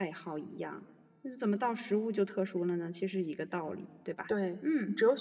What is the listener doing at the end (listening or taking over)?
taking over